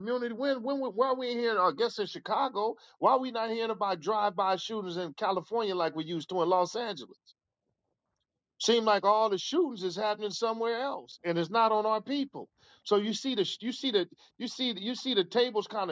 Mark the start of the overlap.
none

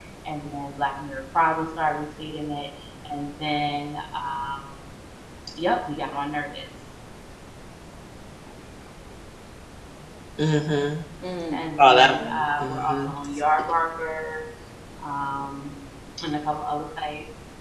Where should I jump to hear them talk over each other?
11.5 s

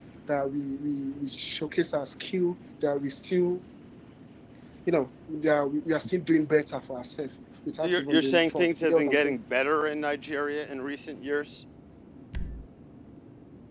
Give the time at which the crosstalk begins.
7.8 s

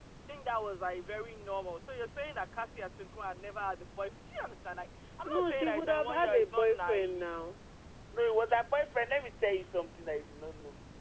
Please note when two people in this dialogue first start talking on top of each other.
5.2 s

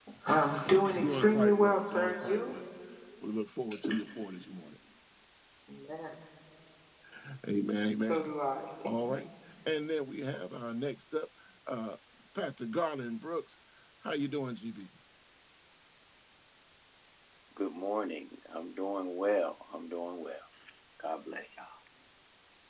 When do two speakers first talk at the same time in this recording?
0.9 s

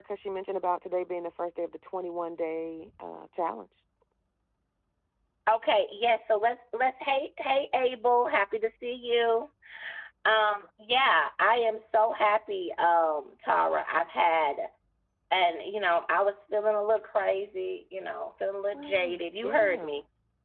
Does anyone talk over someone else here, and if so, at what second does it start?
18.7 s

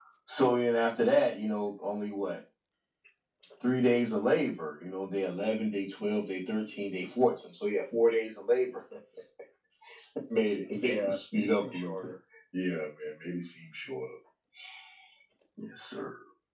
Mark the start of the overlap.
10.7 s

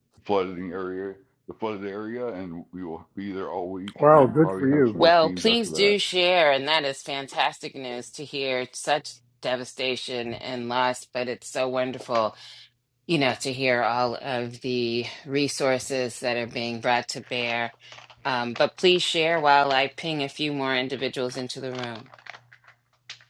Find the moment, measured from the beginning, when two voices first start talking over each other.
4.0 s

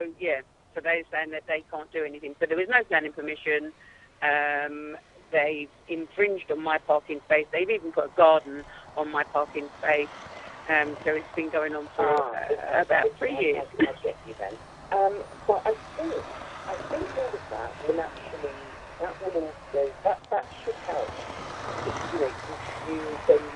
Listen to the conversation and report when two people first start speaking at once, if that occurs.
12.0 s

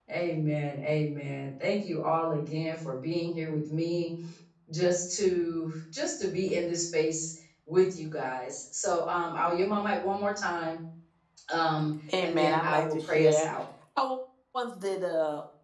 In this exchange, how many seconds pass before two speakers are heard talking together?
12.2 s

